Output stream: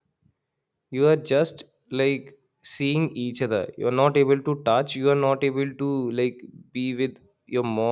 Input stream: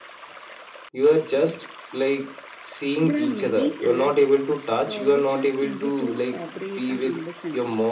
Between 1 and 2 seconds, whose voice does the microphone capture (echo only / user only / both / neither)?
echo only